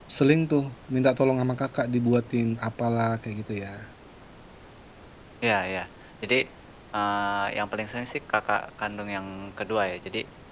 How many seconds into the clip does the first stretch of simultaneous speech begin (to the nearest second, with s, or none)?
none